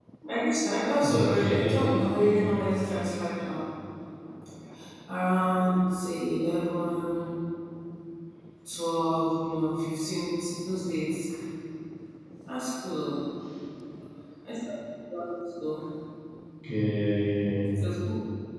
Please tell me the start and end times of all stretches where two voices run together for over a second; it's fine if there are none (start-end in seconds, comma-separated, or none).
1.0-2.4